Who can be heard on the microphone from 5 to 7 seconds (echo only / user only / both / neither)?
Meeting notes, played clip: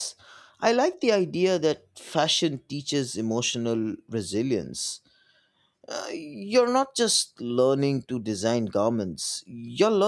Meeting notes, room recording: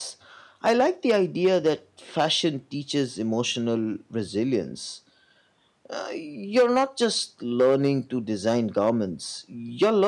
echo only